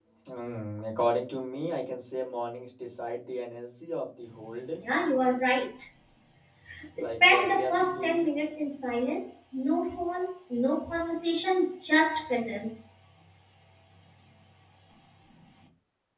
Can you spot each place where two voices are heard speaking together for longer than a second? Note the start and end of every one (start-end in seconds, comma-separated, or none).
7.0-8.2